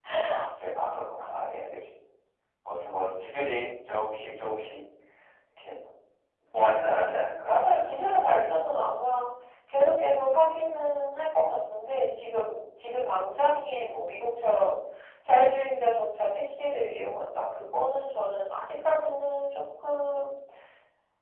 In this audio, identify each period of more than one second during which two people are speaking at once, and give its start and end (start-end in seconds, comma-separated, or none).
6.9-8.8